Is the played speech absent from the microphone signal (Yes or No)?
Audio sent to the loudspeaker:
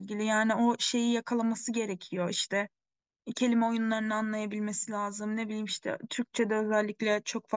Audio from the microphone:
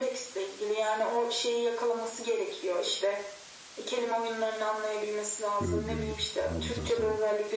No